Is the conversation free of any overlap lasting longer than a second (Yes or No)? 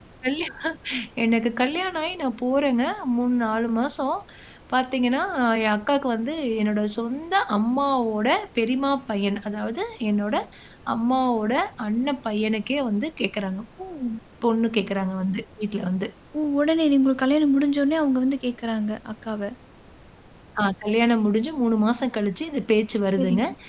Yes